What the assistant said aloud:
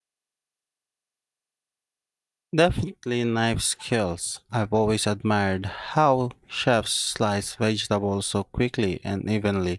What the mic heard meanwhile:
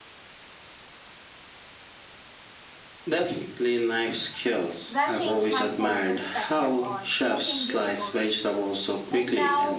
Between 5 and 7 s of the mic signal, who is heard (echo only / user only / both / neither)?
both